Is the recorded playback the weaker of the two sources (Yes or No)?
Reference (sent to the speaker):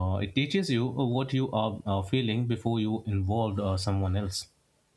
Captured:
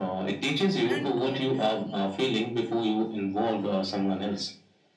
No